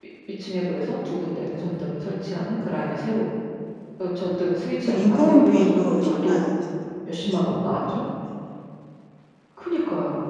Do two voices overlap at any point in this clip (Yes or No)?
Yes